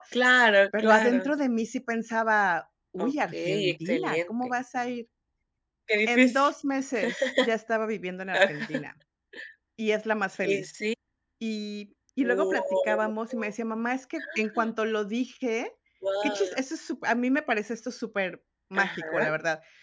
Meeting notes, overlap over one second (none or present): present